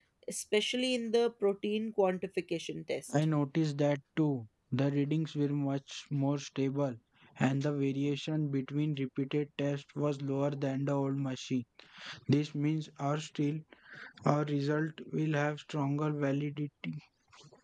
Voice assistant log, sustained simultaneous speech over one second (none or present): none